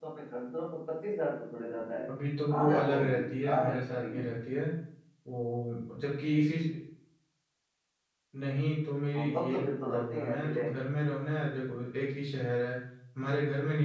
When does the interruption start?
2.5 s

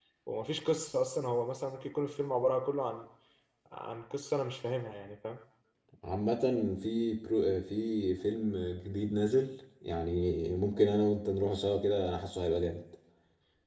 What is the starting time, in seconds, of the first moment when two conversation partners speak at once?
none

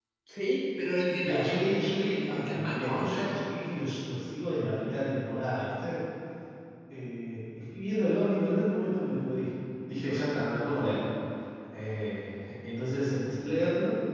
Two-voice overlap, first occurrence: 1.2 s

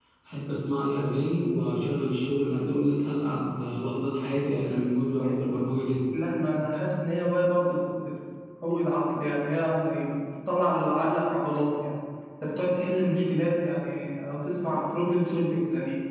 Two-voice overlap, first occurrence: none

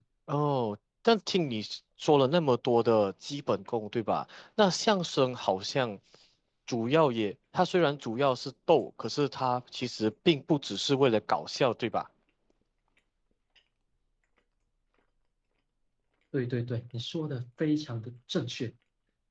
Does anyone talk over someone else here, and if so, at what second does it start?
none

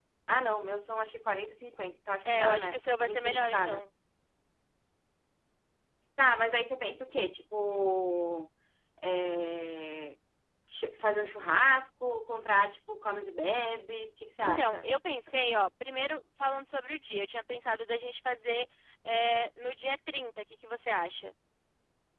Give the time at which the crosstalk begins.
2.2 s

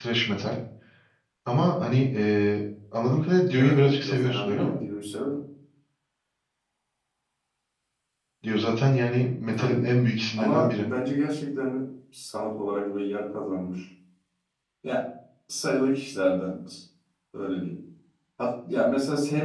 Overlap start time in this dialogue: 3.6 s

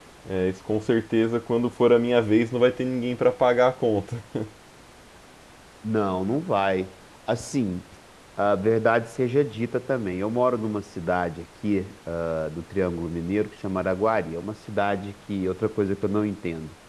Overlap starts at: none

